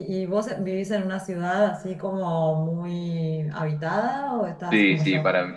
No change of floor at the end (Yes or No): No